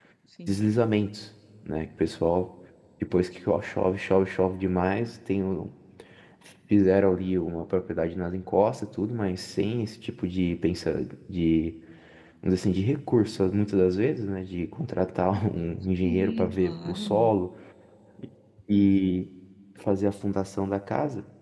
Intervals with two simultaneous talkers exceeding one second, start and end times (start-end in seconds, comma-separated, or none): 16.0-17.3